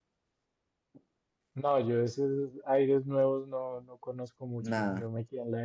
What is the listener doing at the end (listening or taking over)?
listening